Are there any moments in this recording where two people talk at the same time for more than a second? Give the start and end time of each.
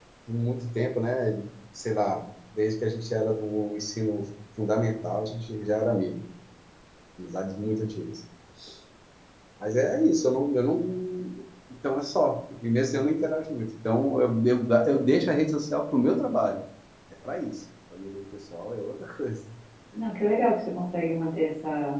none

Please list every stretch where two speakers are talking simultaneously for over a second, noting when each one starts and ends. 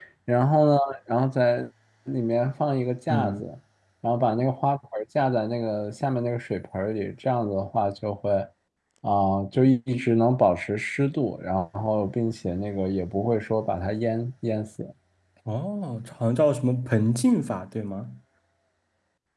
none

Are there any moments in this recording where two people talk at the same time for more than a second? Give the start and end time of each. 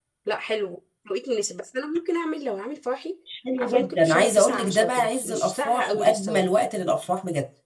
3.6-6.4

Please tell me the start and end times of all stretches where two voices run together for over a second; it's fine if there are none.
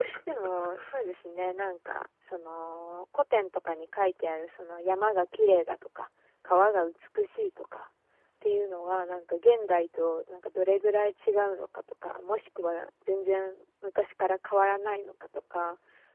none

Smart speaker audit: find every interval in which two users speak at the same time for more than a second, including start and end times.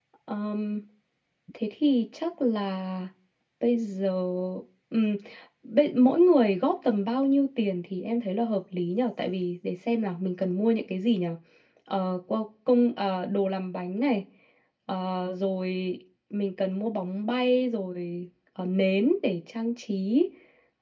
none

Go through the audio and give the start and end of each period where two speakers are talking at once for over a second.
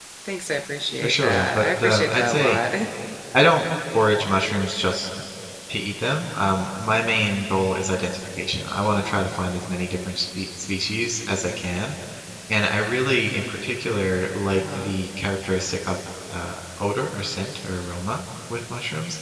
0.9-2.6

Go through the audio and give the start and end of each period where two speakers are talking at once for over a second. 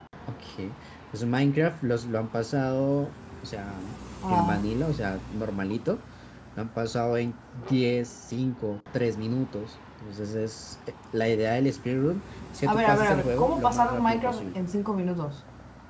12.7-14.6

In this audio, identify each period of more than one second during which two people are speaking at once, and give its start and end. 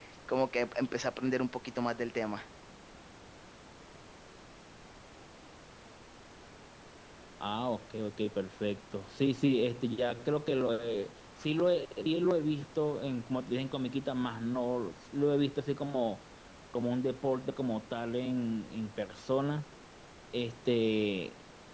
none

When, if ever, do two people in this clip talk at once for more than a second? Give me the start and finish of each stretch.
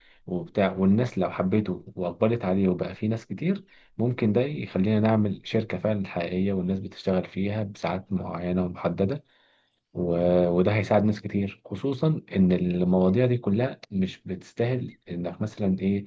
none

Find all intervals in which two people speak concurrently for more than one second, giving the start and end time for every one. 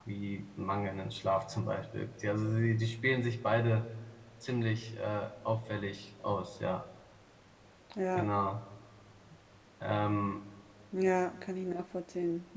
none

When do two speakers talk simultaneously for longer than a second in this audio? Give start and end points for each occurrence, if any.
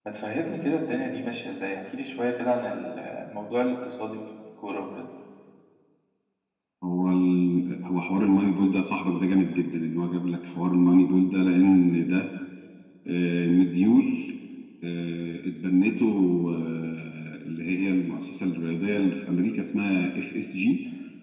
none

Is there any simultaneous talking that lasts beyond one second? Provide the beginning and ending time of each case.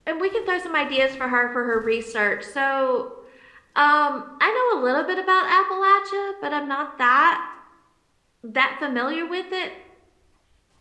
none

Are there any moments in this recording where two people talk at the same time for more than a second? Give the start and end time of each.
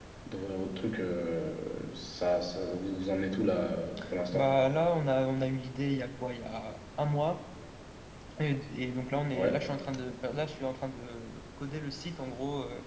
none

